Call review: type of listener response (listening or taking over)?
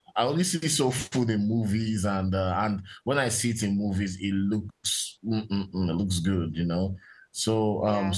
listening